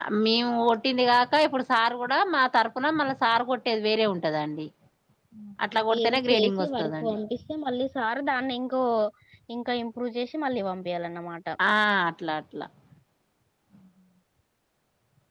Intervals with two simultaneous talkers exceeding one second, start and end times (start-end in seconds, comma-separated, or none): 5.9-7.2